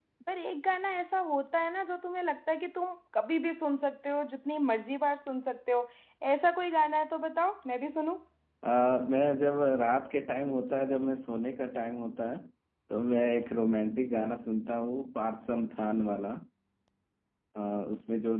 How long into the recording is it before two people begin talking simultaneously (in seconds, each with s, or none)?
none